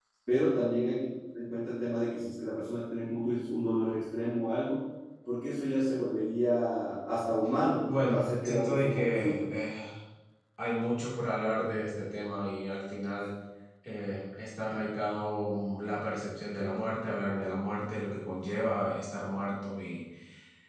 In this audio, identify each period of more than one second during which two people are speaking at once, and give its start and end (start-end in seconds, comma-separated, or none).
7.9-9.5